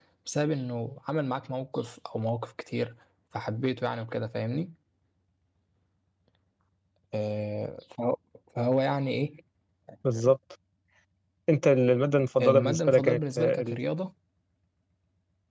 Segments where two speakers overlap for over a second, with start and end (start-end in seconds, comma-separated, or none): 12.4-13.8